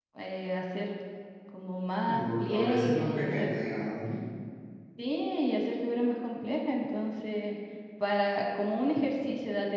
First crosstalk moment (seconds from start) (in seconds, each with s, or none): 2.0 s